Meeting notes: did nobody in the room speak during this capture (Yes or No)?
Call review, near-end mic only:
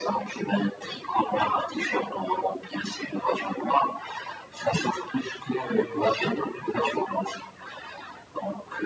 No